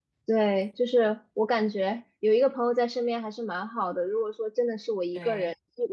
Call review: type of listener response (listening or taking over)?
listening